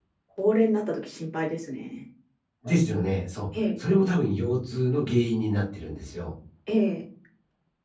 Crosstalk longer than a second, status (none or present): none